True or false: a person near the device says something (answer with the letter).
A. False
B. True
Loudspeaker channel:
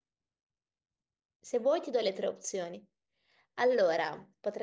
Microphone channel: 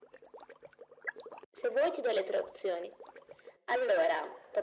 A